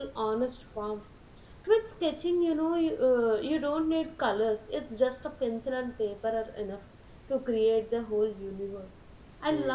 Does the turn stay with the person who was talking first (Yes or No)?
Yes